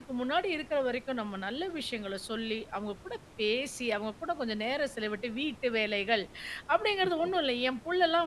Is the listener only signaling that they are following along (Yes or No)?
Yes